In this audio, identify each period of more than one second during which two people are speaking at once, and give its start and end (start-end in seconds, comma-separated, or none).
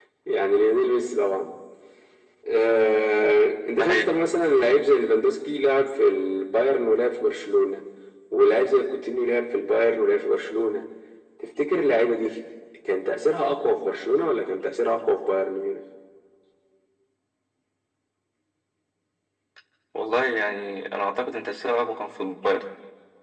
none